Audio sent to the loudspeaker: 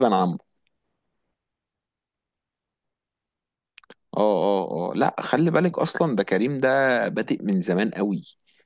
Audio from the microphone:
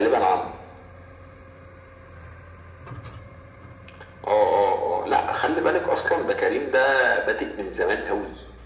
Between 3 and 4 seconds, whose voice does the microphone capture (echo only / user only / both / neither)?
neither